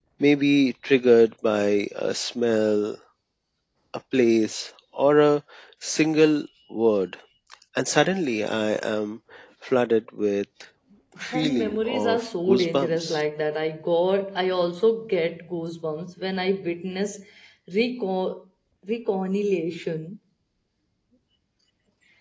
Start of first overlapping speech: 11 s

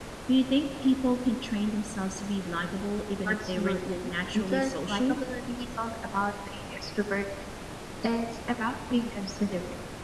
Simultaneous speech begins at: 3 s

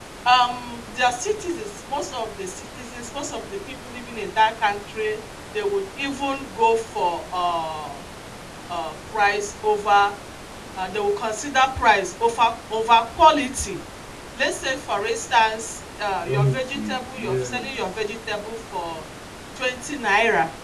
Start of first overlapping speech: 16 s

